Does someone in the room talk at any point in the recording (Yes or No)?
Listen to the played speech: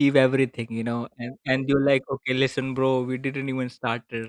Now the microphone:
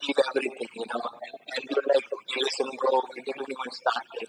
No